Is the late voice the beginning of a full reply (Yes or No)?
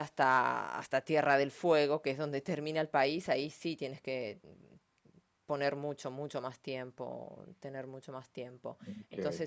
No